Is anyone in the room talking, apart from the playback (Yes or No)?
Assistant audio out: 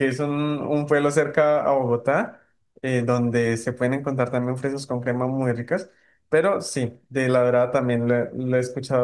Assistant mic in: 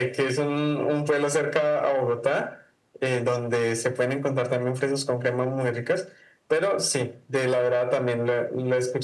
No